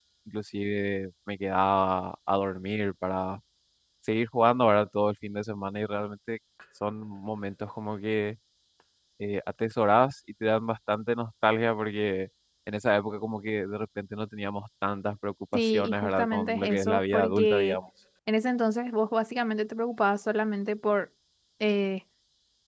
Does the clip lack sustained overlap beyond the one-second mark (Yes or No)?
No